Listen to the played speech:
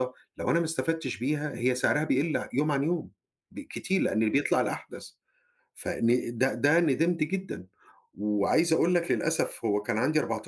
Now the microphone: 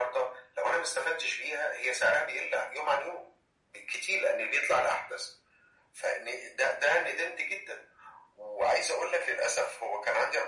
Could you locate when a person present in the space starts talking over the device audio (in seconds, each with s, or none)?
none